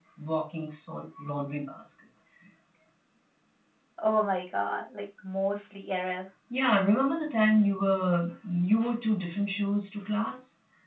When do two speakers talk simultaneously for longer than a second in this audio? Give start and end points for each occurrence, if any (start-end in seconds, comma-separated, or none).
none